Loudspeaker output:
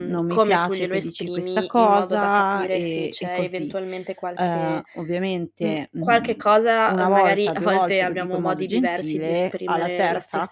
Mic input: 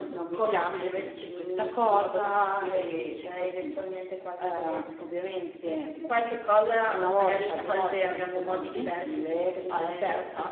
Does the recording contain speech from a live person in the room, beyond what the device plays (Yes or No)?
No